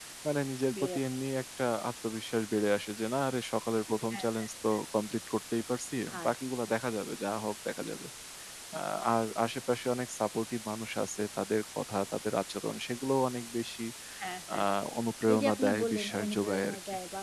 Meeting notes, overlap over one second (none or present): present